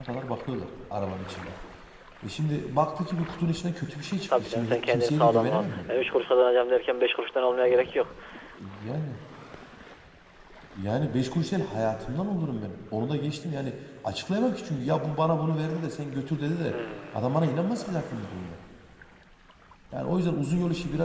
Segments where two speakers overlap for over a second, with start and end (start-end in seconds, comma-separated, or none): 4.4-5.6